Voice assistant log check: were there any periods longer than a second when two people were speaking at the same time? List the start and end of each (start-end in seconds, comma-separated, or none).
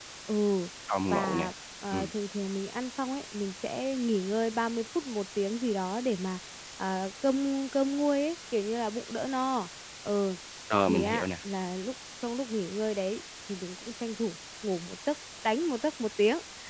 none